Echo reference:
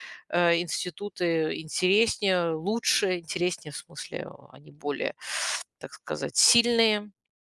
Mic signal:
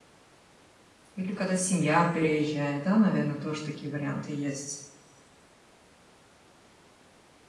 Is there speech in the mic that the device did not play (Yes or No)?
Yes